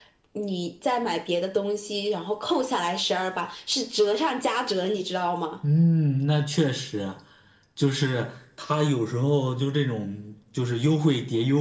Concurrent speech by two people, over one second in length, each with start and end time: none

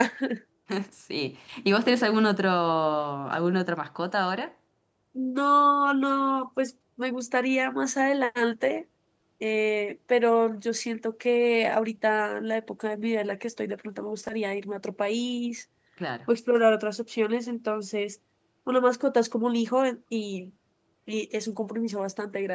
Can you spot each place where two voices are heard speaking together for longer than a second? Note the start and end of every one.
none

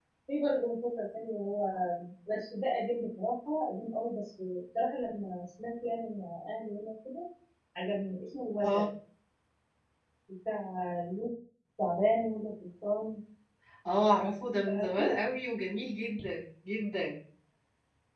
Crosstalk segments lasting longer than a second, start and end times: none

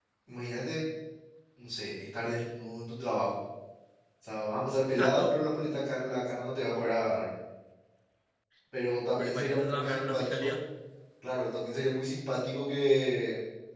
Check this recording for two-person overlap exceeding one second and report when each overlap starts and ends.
9.2-10.5

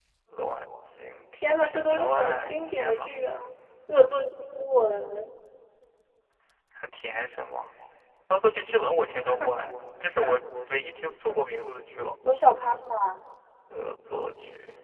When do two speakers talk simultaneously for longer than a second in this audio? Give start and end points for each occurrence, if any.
1.4-3.1

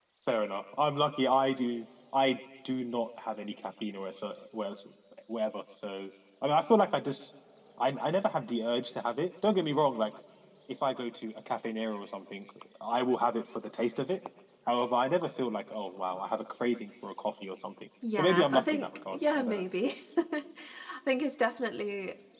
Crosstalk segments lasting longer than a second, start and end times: 18.1-19.6

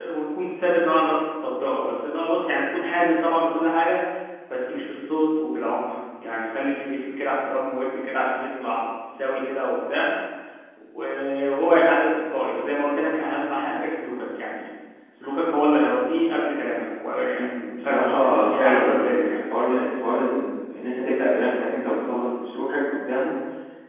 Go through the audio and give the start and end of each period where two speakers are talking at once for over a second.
17.4-19.4

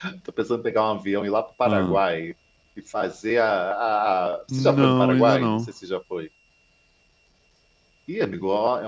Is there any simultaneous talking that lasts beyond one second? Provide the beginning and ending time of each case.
4.5-5.7

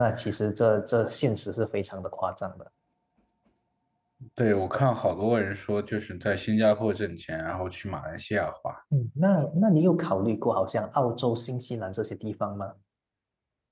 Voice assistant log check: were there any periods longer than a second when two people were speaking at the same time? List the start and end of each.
none

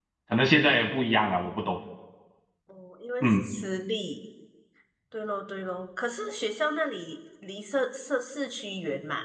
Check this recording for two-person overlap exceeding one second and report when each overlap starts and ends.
none

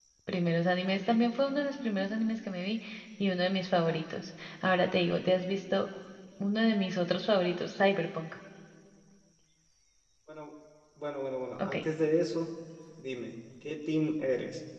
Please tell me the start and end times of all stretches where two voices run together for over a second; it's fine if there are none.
none

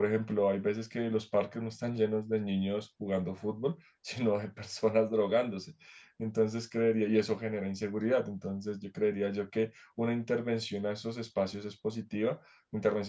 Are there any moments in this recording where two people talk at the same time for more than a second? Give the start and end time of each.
none

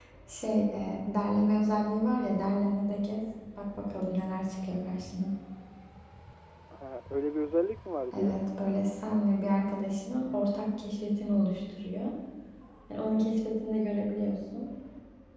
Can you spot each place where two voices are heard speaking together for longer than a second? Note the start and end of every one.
none

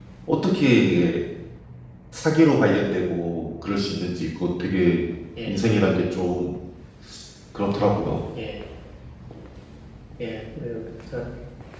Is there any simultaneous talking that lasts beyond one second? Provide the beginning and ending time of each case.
none

